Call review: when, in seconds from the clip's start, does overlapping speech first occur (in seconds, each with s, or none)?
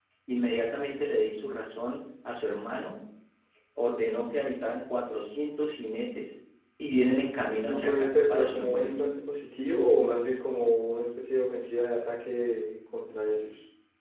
7.6 s